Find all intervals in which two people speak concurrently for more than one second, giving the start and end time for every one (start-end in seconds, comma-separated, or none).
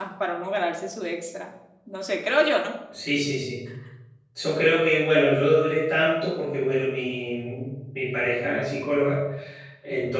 none